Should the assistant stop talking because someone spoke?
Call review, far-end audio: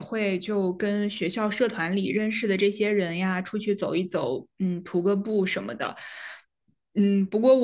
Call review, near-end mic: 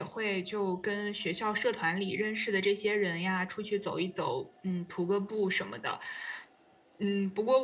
No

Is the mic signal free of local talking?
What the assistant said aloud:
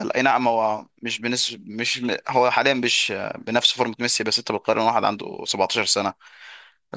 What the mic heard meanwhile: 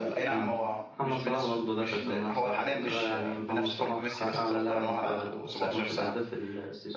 No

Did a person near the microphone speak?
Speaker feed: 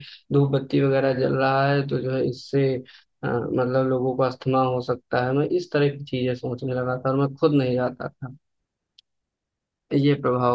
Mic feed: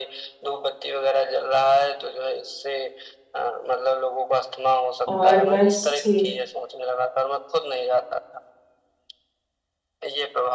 Yes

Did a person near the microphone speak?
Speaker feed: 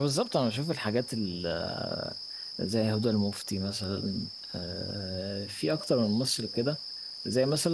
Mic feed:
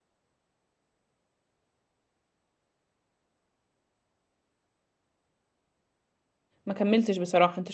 Yes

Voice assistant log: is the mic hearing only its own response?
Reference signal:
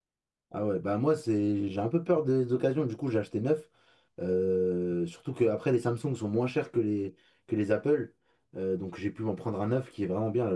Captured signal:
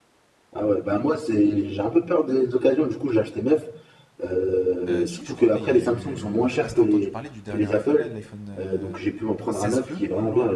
No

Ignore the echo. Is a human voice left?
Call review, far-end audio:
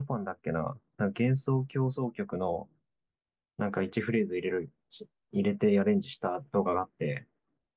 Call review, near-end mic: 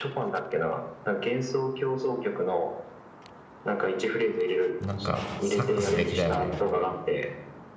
Yes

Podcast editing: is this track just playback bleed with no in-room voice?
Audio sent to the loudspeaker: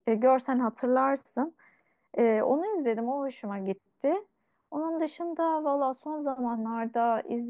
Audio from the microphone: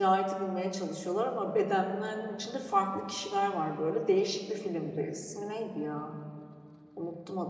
No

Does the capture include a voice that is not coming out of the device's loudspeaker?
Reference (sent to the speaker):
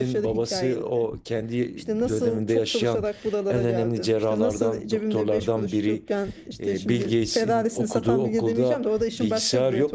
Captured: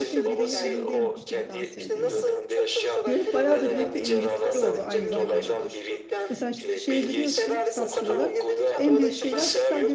Yes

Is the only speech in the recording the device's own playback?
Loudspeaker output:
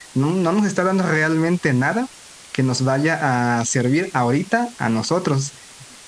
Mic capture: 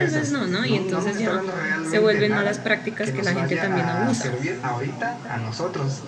No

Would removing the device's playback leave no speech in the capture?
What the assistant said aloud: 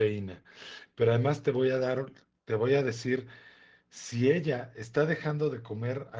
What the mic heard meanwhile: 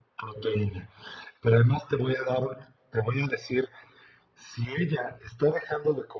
Yes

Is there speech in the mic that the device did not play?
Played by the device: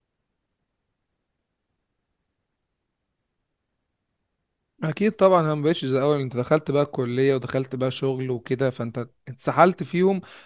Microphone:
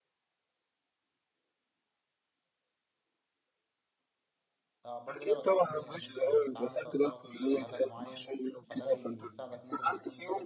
Yes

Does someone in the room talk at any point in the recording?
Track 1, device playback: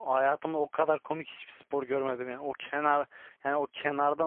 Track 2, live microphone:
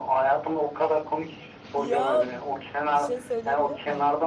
Yes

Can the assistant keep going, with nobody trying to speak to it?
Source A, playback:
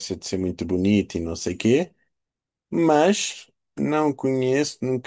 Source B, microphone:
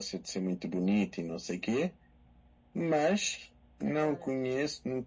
No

